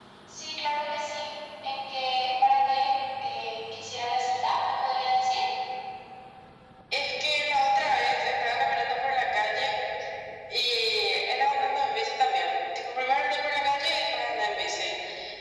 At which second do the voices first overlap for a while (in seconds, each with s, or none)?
none